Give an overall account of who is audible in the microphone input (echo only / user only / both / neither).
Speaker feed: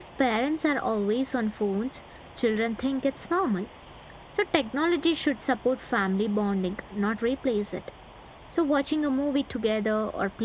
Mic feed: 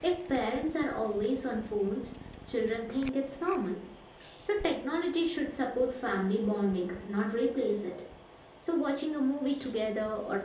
echo only